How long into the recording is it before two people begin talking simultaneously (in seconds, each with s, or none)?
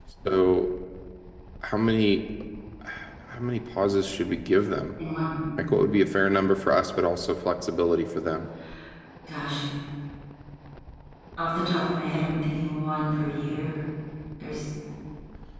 none